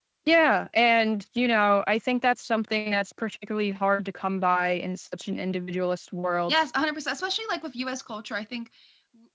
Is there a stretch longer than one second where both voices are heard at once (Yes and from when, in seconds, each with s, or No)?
No